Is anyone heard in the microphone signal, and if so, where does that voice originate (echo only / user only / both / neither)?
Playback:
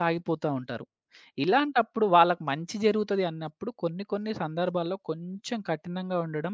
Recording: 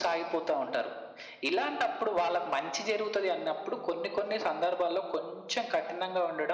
echo only